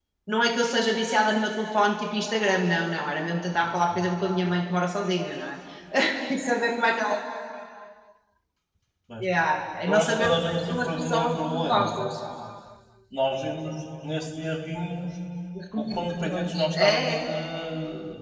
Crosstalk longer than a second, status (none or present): present